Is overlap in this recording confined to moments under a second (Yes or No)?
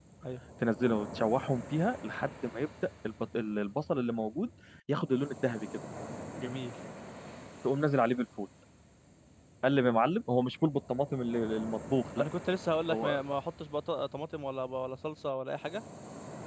Yes